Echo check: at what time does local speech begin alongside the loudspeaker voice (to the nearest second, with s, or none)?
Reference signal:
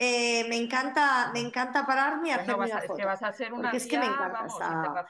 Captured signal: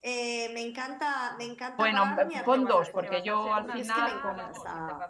2 s